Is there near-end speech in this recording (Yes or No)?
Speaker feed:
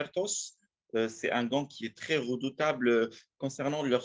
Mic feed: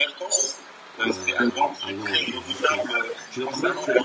Yes